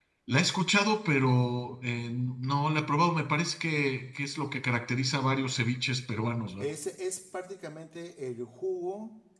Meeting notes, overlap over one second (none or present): none